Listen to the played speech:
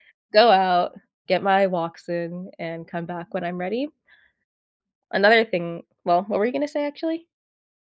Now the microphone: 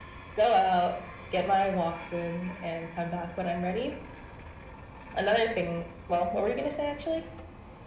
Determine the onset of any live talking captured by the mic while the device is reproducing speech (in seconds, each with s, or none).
none